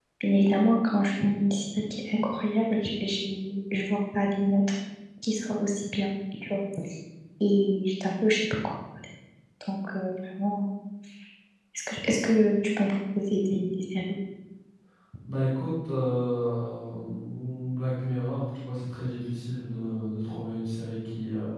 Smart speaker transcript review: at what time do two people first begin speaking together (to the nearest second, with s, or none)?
none